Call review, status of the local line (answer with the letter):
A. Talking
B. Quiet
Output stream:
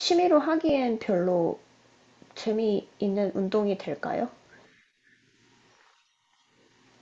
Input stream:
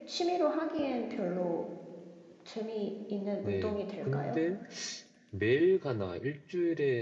A